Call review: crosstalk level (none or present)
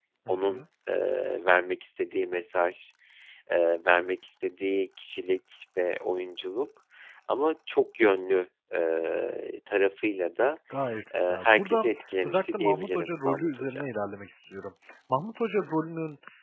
present